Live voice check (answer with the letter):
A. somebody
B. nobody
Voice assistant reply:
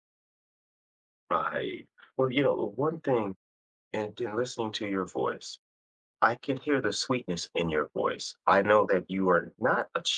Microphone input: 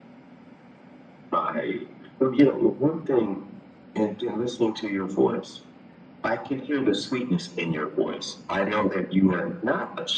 B